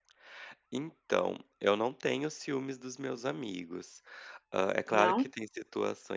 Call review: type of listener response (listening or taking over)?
listening